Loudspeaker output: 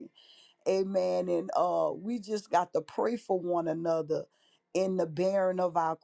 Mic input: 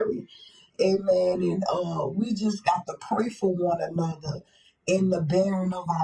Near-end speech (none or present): none